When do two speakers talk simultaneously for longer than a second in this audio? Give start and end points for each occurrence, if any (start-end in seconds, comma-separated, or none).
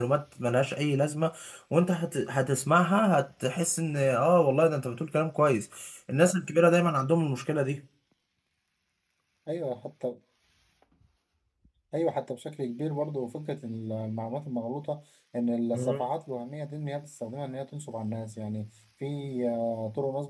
none